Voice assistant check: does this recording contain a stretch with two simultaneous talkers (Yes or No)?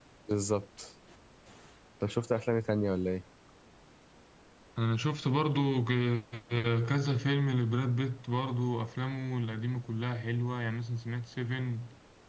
No